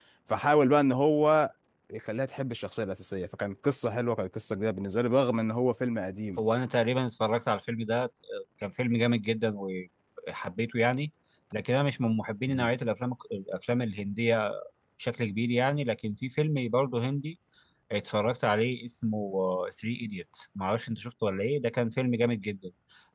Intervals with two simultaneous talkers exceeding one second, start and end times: none

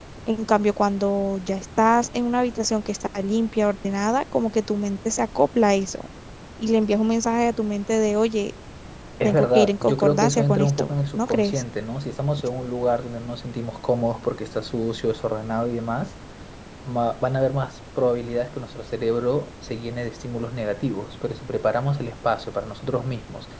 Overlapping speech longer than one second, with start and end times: 9.2-11.6

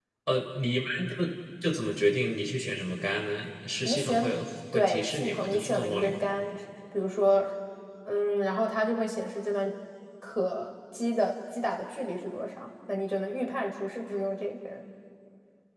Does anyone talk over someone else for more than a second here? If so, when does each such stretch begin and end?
4.7-6.1

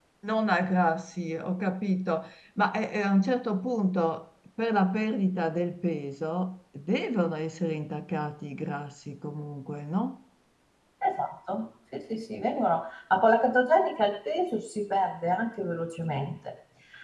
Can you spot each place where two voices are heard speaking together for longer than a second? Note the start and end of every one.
none

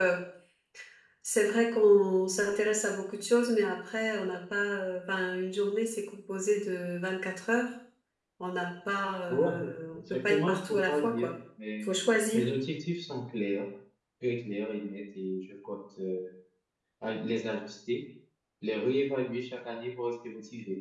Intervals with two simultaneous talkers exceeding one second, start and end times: 10.1-11.3

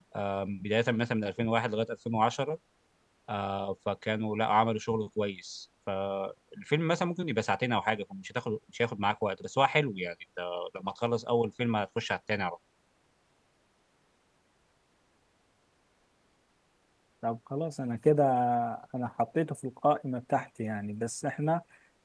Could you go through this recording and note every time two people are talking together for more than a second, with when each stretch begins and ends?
none

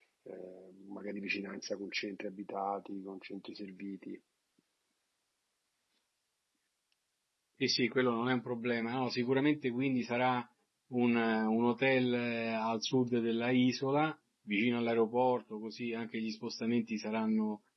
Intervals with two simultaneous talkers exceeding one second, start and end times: none

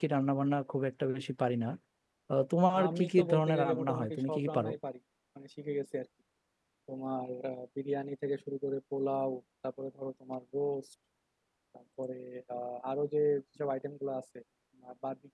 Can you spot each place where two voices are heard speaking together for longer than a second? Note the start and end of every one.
2.9-4.7

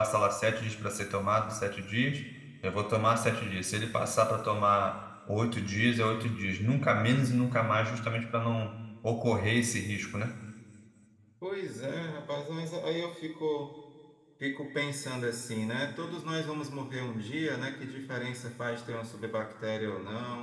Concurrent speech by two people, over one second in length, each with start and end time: none

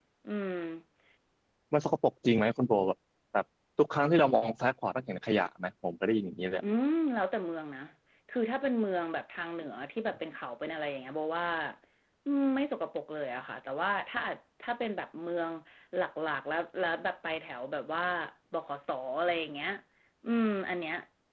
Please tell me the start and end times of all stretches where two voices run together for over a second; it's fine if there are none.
none

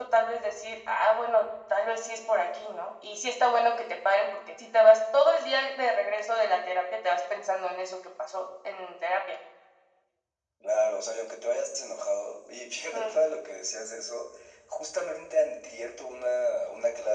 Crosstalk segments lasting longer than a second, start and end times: none

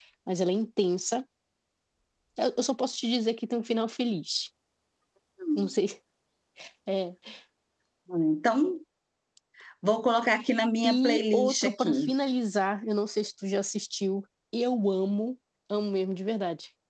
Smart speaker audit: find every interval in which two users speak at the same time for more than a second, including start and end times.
10.8-12.1

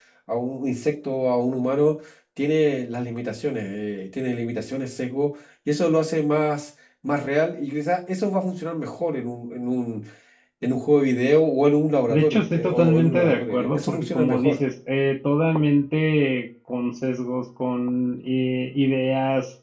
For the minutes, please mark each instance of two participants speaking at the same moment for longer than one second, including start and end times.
12.1-14.6

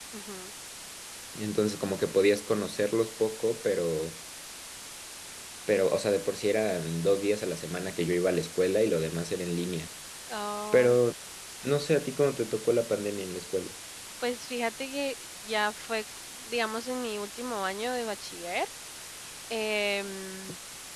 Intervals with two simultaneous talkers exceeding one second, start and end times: none

